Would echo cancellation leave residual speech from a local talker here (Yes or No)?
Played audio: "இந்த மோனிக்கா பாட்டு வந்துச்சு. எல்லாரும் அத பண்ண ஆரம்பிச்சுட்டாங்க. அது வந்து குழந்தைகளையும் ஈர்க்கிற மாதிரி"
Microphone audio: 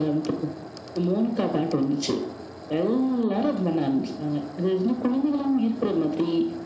No